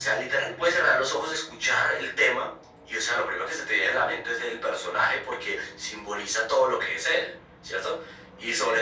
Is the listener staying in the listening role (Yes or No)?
Yes